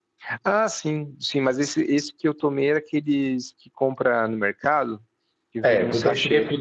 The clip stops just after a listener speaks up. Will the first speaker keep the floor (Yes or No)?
No